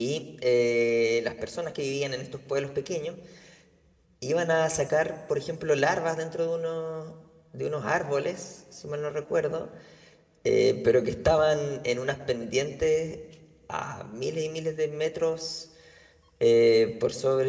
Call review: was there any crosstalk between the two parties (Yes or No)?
No